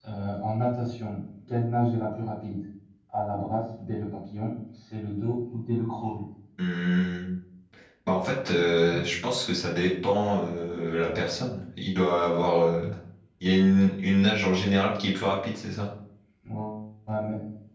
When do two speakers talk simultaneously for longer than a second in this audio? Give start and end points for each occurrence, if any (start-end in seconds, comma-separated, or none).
none